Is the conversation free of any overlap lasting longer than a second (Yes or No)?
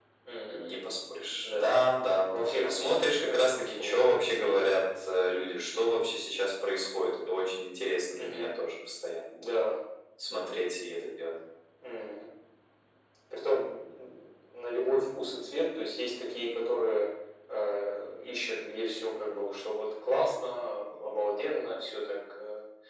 No